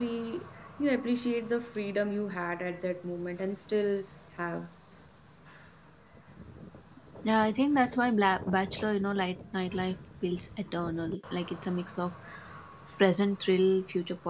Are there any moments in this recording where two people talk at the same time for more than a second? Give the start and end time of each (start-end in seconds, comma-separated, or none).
none